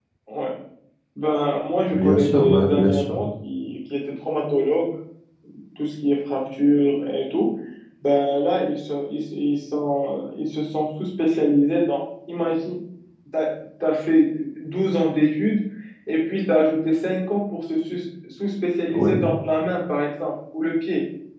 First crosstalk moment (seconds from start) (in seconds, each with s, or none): 1.9 s